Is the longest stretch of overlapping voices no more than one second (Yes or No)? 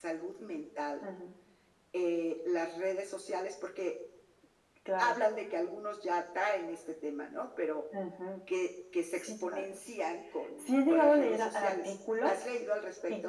No